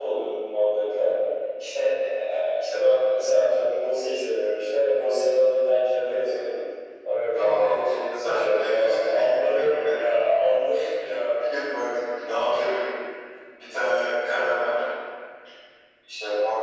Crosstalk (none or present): present